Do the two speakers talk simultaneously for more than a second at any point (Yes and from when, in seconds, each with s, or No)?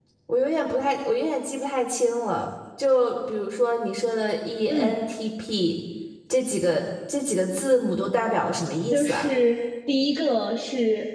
No